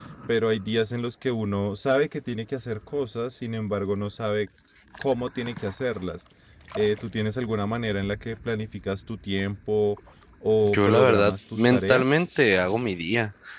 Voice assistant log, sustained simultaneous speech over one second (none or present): present